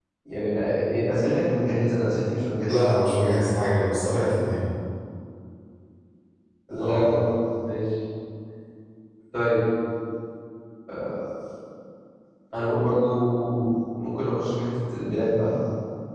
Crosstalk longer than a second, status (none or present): none